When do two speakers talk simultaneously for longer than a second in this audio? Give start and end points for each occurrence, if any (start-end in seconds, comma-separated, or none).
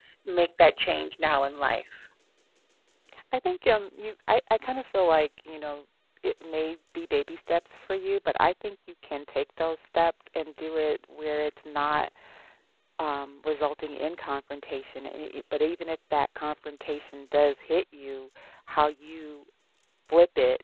none